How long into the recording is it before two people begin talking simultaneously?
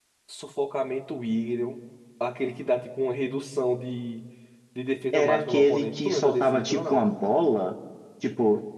5.1 s

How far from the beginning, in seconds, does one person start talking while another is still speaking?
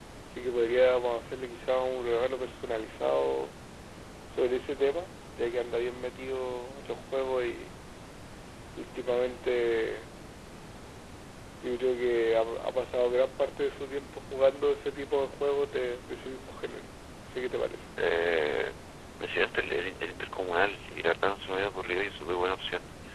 none

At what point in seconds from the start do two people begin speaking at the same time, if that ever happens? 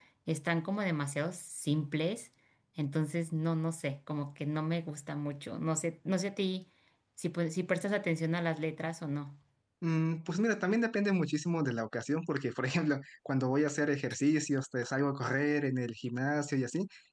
none

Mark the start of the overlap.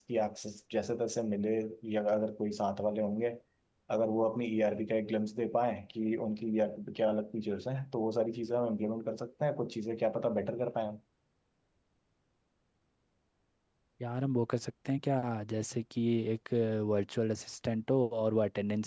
none

